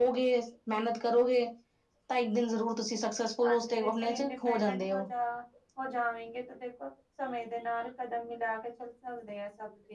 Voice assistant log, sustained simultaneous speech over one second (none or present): present